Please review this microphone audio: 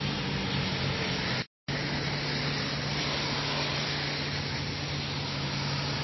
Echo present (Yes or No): No